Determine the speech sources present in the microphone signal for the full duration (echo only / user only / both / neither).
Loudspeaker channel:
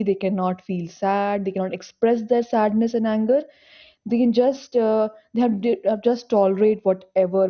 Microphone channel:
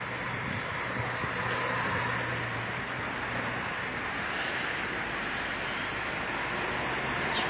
neither